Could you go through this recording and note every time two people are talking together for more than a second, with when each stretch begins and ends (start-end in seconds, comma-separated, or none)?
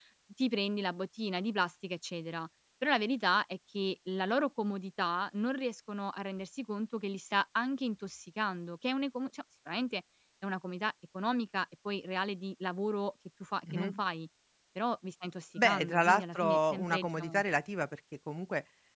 15.6-17.4